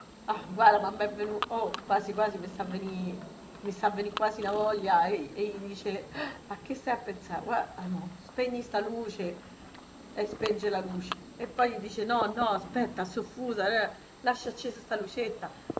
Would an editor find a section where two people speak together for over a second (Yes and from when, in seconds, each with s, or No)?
No